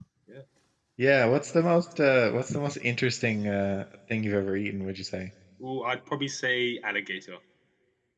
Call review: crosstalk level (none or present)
none